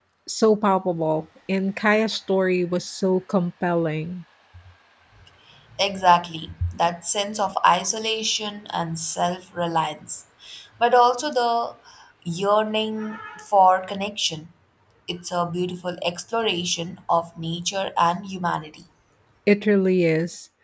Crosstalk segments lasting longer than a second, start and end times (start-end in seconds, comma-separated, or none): none